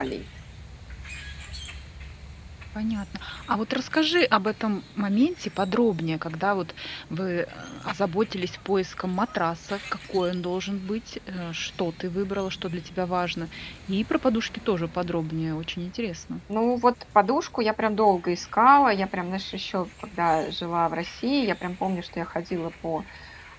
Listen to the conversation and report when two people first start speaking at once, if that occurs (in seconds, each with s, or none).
none